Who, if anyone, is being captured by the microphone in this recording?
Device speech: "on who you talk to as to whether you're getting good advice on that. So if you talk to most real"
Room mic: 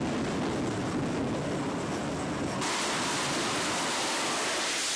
neither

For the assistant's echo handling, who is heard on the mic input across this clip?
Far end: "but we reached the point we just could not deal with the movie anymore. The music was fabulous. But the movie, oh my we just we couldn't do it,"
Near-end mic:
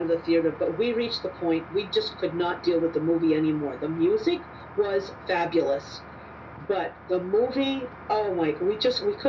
echo only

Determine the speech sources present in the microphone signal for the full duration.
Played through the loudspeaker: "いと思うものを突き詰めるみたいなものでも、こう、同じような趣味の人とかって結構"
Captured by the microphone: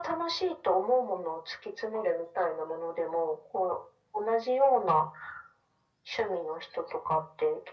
echo only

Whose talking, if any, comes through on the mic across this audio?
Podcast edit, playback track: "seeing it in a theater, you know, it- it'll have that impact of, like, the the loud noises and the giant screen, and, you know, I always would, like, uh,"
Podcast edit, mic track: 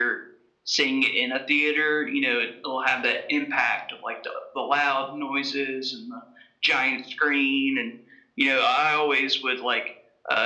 echo only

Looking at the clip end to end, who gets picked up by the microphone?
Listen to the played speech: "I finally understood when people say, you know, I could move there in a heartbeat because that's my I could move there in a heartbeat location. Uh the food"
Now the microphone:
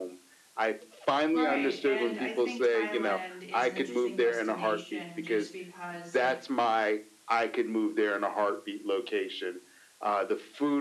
both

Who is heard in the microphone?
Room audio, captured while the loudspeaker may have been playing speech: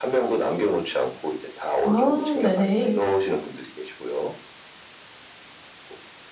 both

